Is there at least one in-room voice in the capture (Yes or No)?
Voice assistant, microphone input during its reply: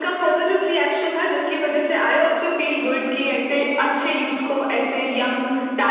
No